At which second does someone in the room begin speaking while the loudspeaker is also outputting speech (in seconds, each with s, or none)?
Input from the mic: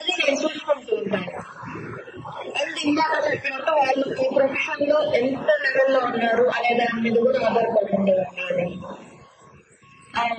none